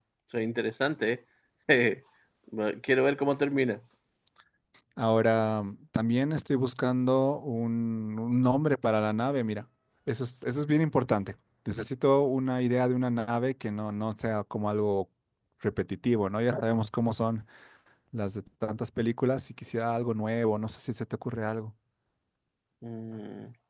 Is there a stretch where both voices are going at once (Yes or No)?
No